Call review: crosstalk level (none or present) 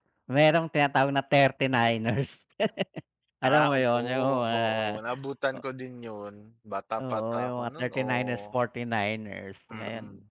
present